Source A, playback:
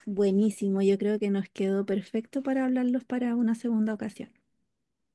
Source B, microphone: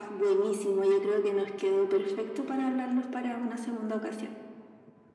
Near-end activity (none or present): none